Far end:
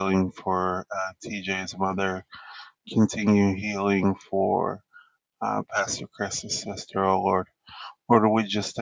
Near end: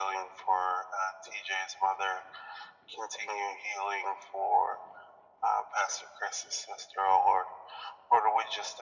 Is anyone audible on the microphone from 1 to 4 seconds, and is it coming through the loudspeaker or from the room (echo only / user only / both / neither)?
echo only